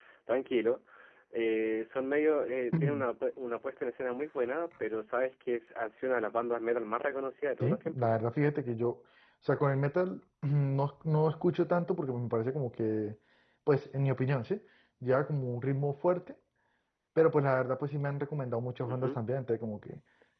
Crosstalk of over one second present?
No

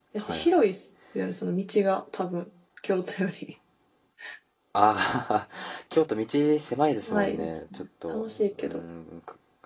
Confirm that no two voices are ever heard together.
No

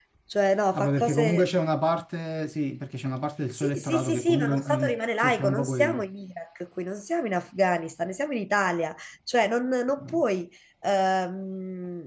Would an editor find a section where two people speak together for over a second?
Yes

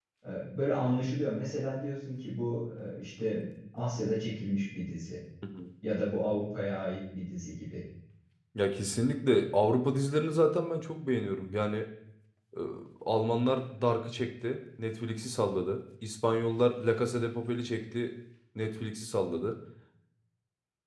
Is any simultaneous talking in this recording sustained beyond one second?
No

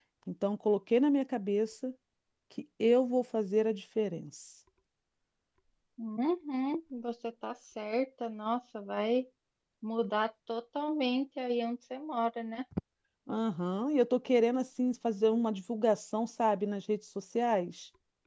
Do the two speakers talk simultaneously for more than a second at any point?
No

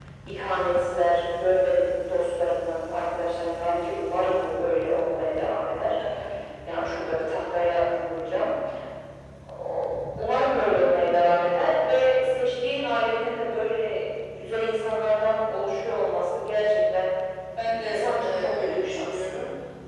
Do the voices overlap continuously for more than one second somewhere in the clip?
Yes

